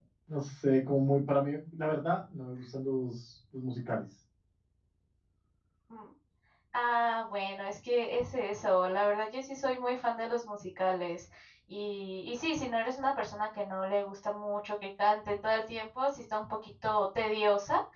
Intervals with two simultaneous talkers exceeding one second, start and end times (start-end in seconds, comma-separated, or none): none